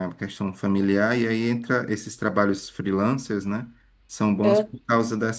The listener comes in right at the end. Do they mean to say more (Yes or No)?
No